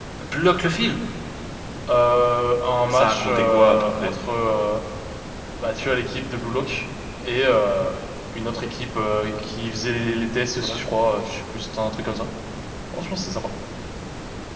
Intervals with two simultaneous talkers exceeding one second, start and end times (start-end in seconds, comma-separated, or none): 2.9-4.1